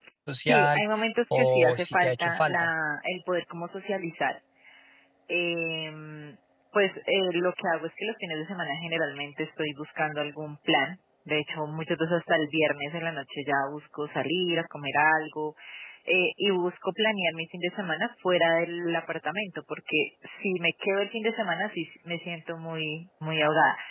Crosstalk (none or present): present